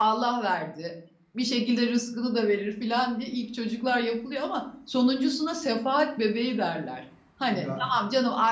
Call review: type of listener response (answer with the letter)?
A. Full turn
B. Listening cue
B